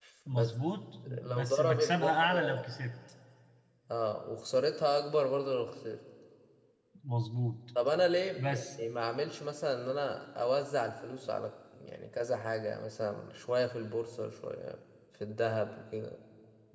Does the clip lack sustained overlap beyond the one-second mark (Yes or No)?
No